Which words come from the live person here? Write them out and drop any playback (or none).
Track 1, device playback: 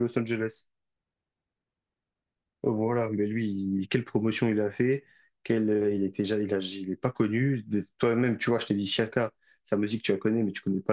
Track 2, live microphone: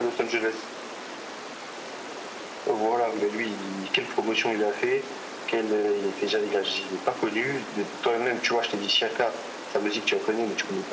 none